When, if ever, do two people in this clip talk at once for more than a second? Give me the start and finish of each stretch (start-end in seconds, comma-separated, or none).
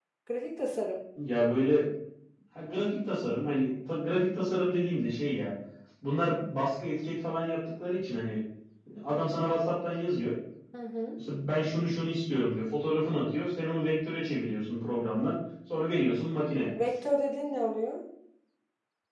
none